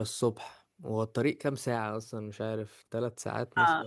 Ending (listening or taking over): taking over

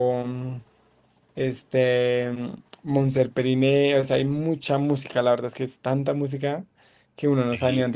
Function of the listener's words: taking over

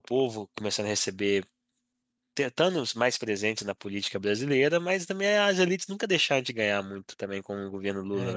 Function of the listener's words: taking over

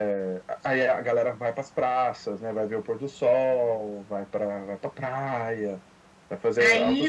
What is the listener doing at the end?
taking over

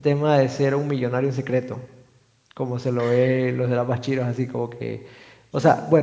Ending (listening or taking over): listening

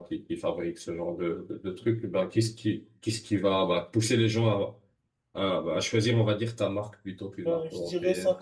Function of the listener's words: taking over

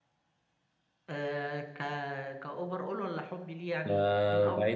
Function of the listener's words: taking over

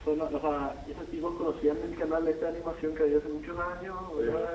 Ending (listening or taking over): listening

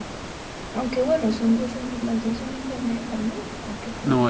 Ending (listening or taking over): taking over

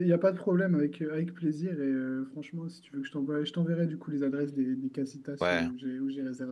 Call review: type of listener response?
listening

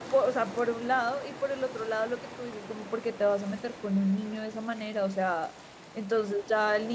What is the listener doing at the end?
listening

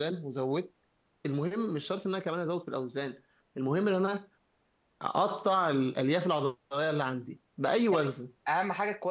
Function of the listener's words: taking over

